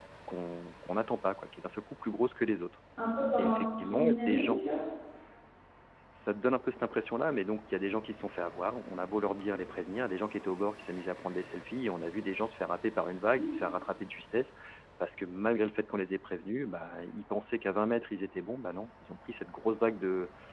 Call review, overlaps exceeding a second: present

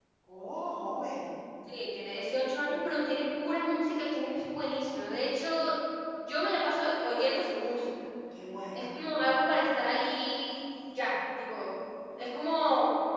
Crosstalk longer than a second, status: none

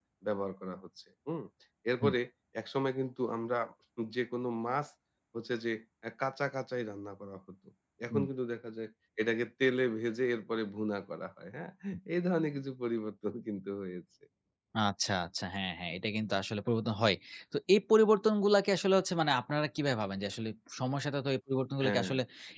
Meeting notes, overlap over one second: none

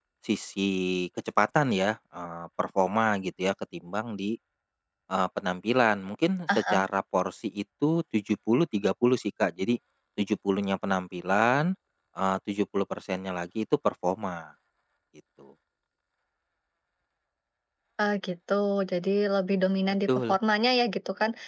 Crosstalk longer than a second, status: none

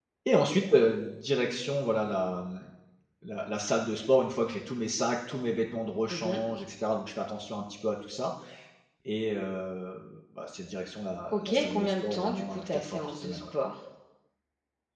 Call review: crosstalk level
present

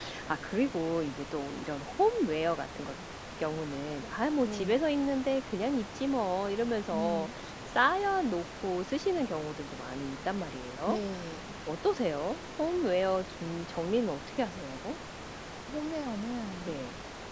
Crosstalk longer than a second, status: none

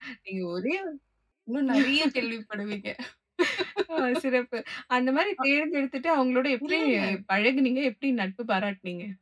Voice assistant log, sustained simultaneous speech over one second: none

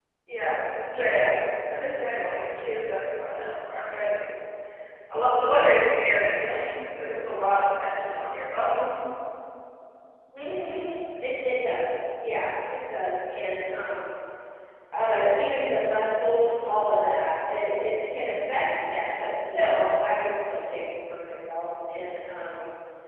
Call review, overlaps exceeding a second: none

